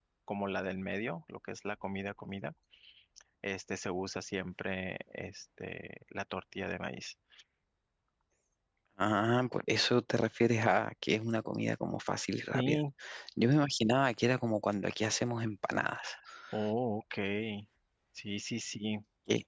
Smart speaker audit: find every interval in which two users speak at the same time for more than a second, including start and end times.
none

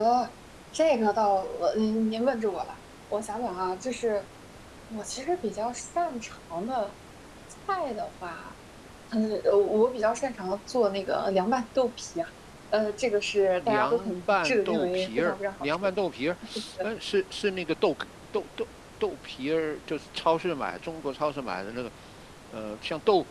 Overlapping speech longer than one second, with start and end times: 13.6-15.8

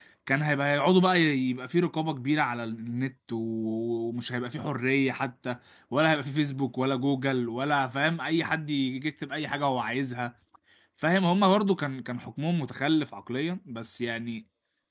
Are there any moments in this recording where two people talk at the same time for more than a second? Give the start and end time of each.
none

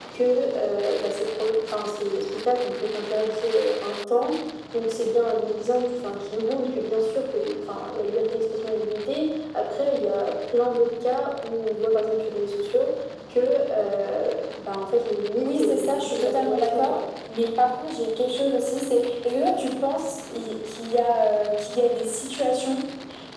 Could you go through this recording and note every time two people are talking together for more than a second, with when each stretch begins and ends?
15.4-17.0

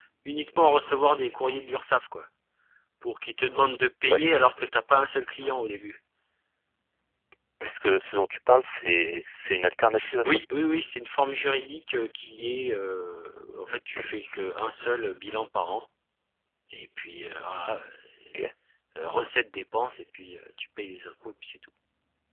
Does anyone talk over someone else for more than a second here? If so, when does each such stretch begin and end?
none

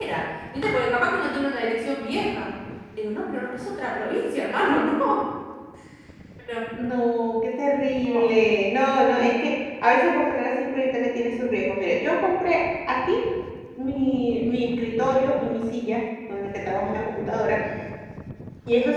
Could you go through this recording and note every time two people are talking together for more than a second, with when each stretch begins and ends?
none

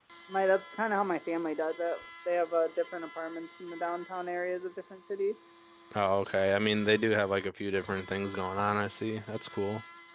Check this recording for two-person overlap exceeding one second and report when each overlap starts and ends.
none

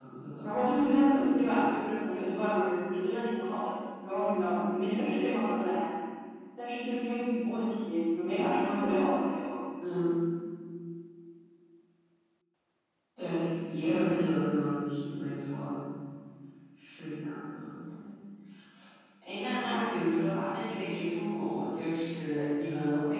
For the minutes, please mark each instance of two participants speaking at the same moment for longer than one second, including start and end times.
none

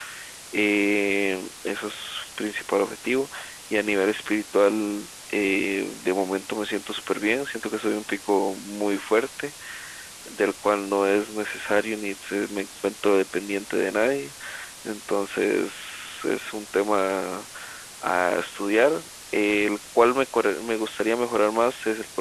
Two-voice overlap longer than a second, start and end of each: none

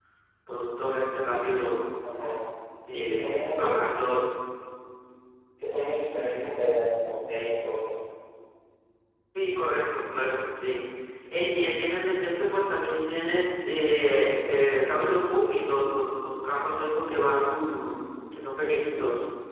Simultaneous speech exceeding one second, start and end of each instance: 2.9-4.1

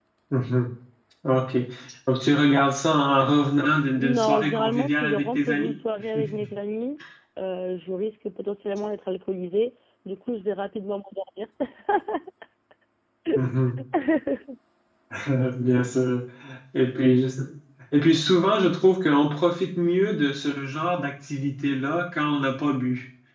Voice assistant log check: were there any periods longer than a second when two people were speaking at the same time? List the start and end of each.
3.9-5.7

